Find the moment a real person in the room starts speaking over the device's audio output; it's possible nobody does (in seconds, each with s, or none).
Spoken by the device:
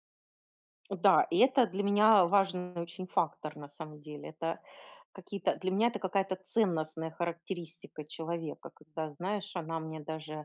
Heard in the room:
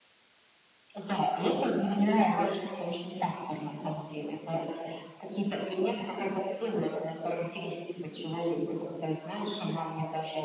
none